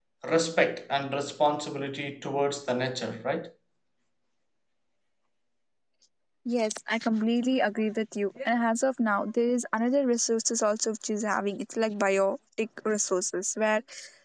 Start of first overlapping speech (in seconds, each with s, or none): none